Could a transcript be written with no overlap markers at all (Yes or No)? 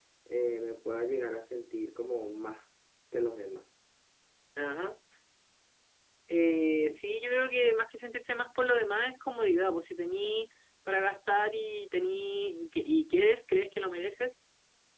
Yes